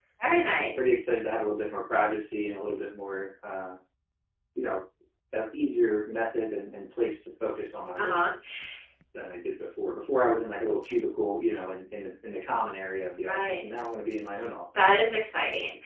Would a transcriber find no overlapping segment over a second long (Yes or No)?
Yes